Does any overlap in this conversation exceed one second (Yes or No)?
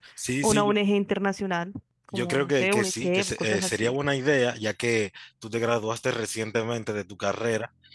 Yes